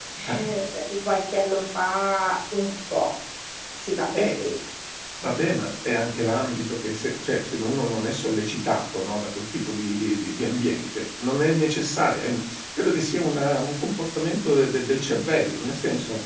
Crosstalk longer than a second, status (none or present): none